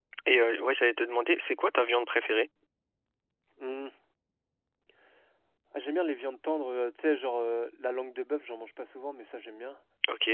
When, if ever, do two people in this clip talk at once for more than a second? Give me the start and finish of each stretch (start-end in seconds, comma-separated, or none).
none